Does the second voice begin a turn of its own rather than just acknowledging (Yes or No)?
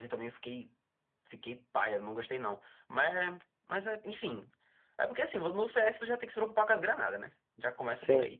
No